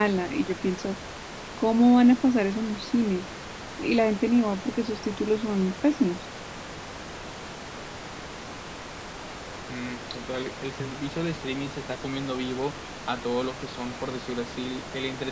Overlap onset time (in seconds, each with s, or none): none